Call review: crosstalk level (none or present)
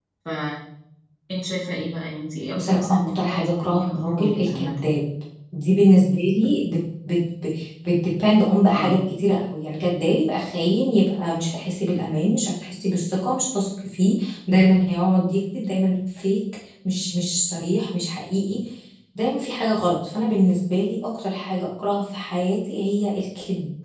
present